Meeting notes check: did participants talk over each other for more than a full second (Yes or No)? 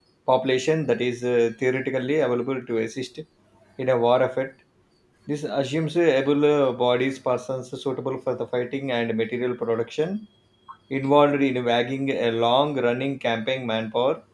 No